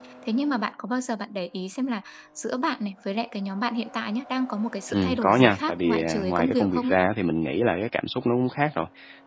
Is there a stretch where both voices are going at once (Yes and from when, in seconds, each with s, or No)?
Yes, from 4.9 s